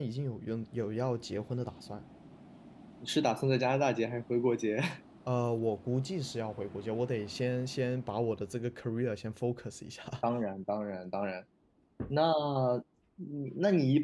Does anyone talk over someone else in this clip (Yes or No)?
No